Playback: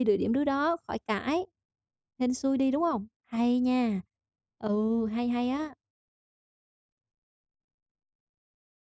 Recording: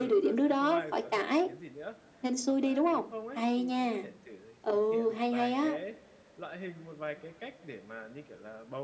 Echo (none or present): present